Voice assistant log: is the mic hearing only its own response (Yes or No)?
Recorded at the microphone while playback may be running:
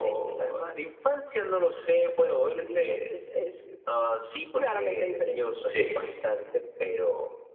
No